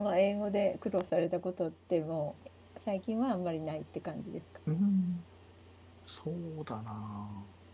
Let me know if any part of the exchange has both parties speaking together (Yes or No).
No